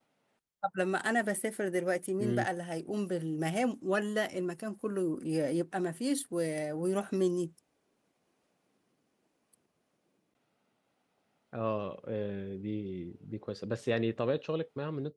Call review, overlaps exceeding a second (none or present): none